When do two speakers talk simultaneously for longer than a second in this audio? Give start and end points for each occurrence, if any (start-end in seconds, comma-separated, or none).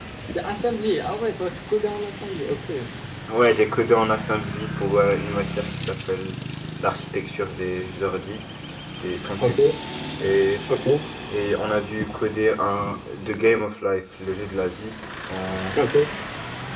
none